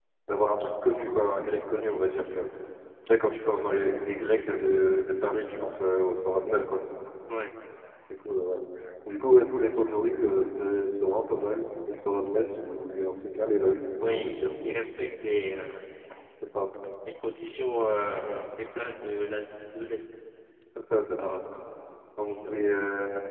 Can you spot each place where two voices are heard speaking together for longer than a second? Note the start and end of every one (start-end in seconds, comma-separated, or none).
none